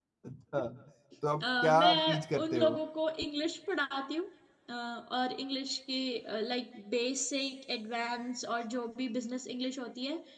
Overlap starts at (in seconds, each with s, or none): 1.4 s